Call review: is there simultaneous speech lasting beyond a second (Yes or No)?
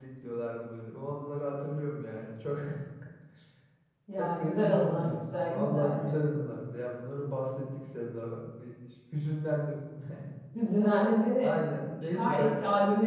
Yes